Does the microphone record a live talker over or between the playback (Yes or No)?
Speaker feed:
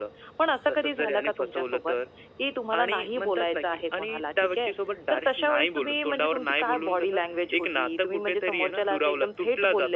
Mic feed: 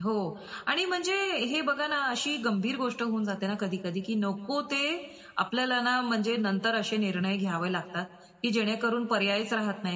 Yes